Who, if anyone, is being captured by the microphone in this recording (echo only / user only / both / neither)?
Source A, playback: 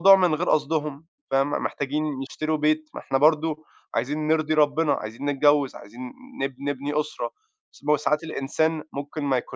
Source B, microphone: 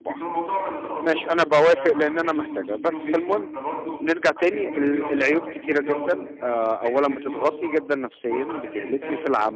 both